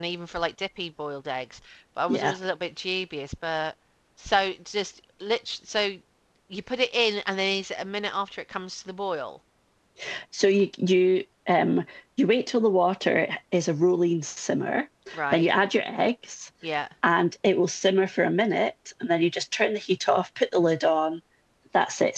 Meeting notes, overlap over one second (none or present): none